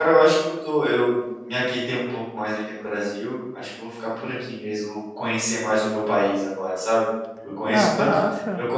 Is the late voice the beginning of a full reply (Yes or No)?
No